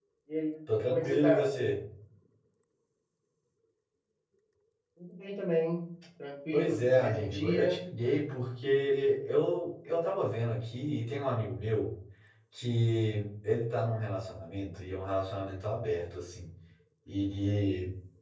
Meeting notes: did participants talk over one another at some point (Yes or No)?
Yes